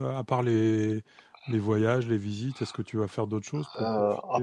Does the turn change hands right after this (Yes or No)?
Yes